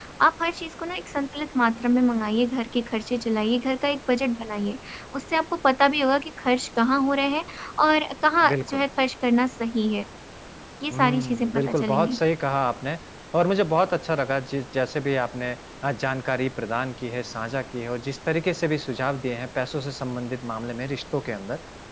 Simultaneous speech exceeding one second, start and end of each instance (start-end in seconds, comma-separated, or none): 10.9-12.2